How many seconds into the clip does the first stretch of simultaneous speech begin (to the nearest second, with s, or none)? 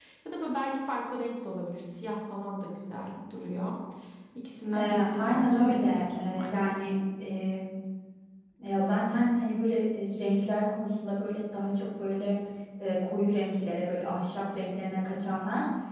5 s